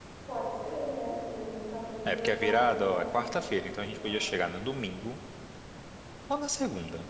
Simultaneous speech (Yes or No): Yes